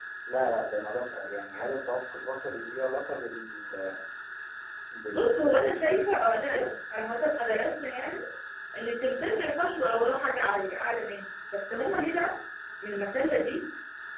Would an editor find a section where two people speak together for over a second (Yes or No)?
Yes